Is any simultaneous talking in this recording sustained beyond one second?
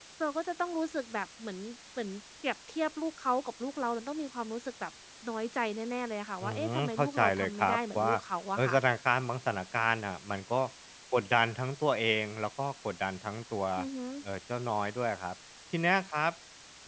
Yes, from 6.4 s

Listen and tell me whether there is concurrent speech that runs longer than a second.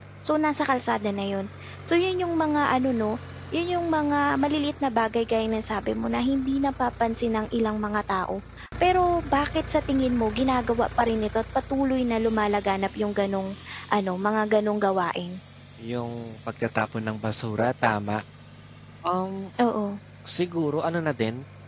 No

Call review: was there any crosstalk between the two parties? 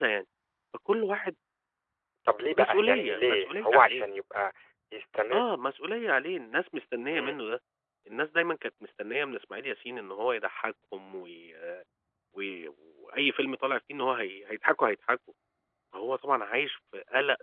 Yes, from 2.6 s

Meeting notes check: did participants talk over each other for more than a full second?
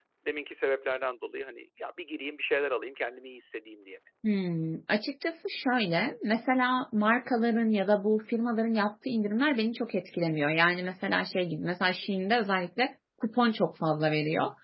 No

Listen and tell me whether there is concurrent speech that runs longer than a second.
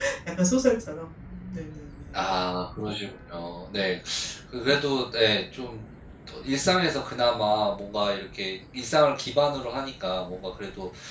No

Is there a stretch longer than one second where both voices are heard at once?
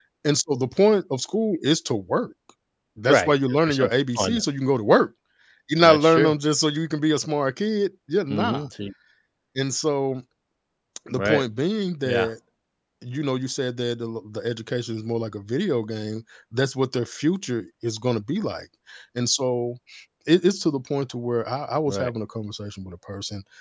Yes, from 3.1 s

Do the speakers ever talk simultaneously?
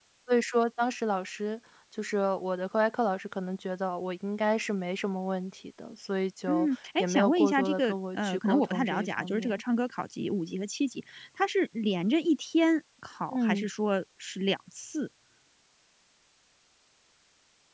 Yes, from 6.5 s

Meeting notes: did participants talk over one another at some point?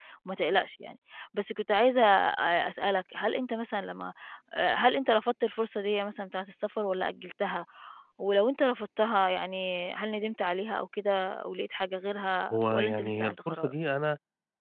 Yes, from 12.5 s

